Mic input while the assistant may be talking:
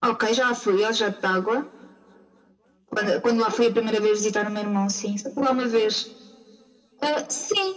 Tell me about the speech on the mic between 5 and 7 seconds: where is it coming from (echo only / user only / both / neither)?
echo only